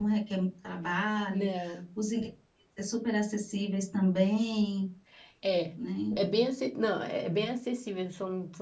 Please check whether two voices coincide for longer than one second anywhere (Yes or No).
No